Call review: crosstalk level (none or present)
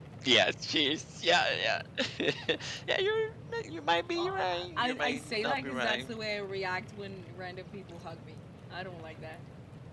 present